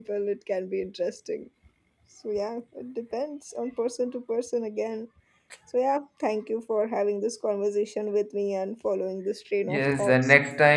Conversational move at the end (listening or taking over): taking over